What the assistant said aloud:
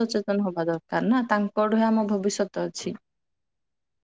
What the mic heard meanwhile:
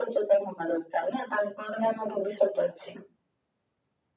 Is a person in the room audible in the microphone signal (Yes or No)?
No